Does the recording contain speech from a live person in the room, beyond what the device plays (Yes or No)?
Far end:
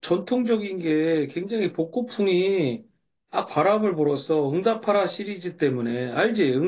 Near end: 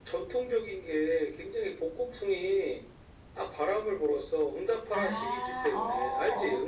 Yes